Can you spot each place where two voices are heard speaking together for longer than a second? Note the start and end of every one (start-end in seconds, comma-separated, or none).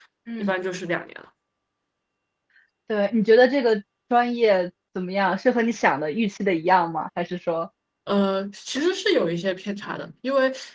none